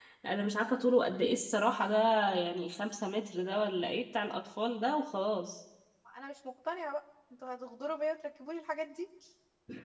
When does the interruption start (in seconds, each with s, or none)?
none